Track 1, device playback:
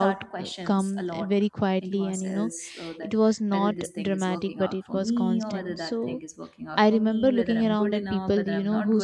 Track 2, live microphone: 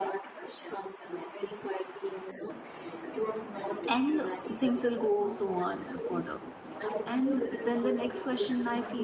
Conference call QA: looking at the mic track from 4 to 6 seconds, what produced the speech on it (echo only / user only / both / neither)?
both